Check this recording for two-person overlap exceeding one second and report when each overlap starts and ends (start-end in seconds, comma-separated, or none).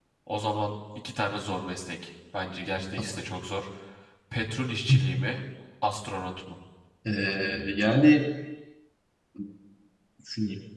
none